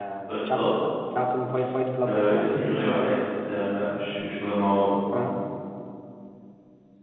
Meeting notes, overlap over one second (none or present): none